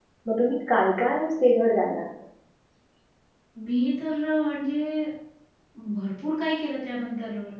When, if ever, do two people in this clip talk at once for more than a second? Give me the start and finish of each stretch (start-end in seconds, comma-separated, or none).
none